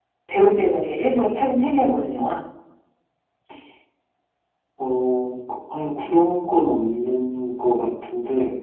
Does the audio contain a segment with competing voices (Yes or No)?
No